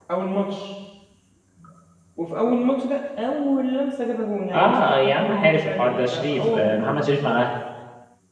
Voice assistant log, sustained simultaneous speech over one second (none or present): present